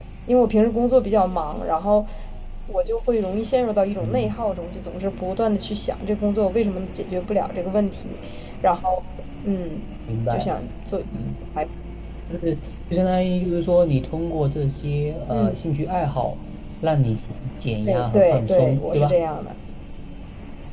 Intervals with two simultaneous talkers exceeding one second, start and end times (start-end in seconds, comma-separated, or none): 17.8-19.2